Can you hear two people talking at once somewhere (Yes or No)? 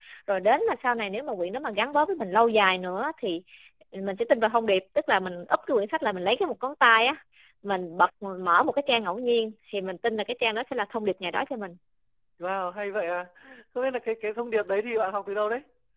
No